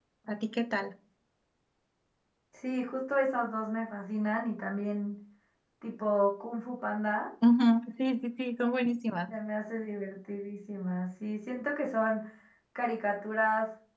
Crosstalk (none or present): none